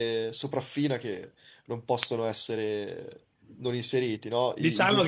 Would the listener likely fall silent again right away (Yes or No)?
No